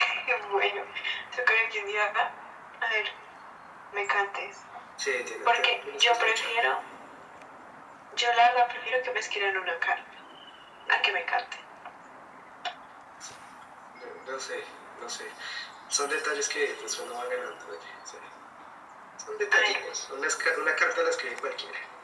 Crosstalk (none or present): present